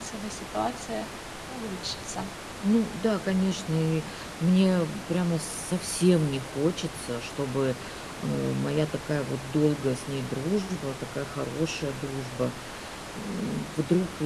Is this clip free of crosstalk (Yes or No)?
Yes